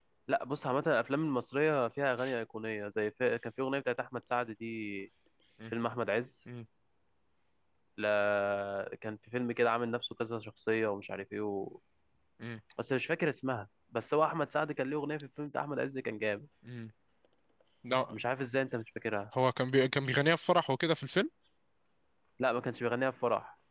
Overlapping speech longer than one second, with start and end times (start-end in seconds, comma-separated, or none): none